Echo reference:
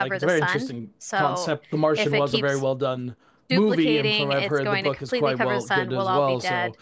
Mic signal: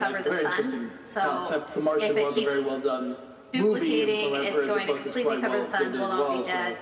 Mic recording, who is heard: echo only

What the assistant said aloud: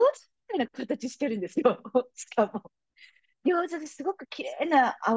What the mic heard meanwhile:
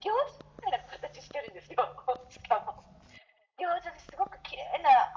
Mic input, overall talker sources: echo only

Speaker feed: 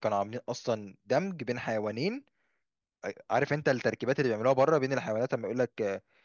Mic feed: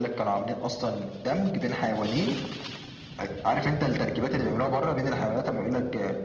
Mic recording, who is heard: echo only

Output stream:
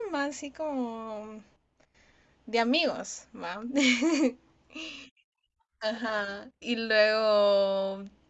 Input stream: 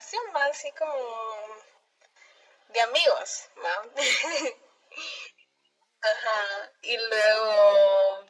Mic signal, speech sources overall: echo only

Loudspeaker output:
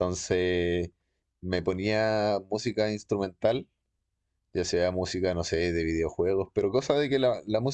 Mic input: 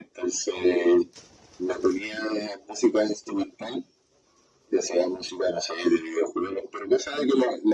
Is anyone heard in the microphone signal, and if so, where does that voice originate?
echo only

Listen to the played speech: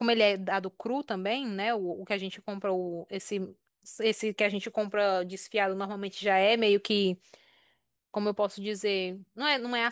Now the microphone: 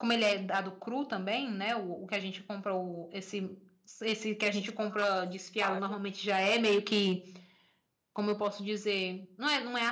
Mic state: both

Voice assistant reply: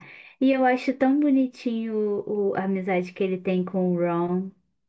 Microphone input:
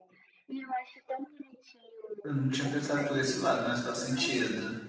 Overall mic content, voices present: both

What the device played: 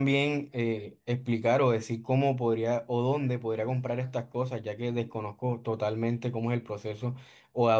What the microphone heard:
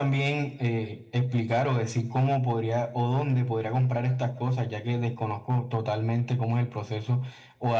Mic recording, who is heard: echo only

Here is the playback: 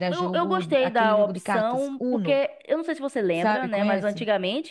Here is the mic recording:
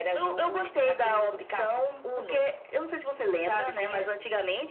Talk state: echo only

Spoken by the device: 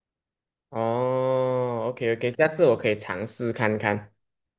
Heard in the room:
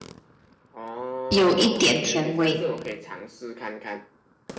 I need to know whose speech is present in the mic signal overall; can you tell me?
both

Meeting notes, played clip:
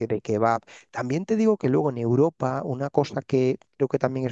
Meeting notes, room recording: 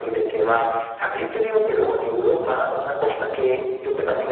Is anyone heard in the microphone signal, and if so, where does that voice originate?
echo only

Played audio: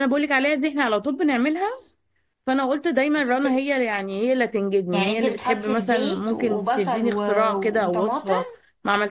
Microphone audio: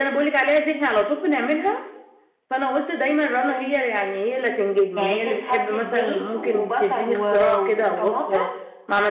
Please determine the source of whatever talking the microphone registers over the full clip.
echo only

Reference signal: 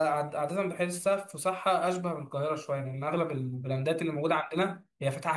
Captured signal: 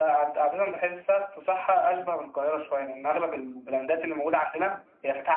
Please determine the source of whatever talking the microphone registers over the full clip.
echo only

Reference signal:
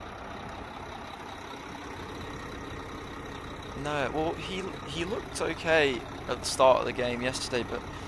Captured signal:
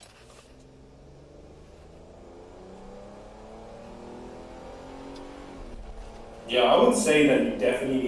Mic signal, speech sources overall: user only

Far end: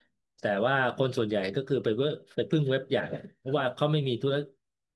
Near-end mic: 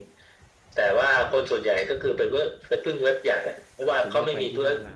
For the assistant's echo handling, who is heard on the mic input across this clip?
both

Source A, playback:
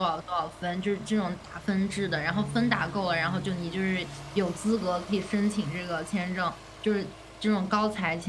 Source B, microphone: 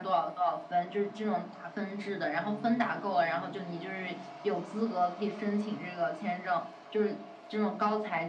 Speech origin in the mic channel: echo only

